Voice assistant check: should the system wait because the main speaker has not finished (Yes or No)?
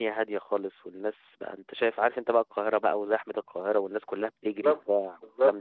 Yes